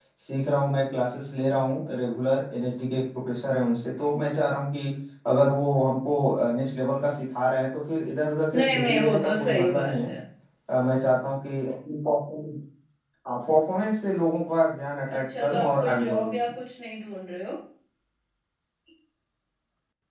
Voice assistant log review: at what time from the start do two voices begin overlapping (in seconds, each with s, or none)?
8.5 s